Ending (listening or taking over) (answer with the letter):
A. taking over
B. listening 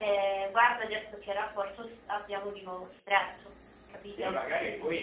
A